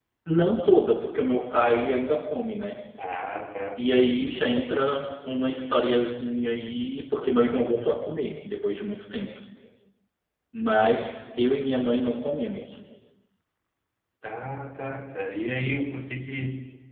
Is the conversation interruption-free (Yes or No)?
Yes